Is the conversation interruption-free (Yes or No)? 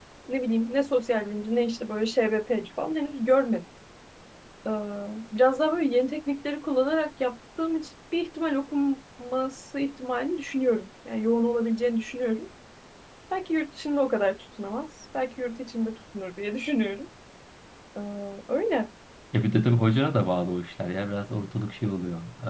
Yes